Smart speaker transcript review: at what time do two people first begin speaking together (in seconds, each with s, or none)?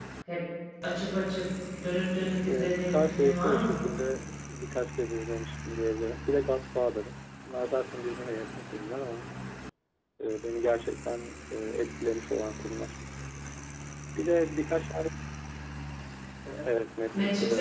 2.5 s